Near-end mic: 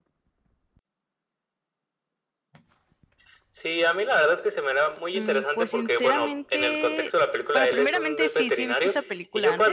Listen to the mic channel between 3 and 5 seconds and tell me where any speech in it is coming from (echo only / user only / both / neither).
echo only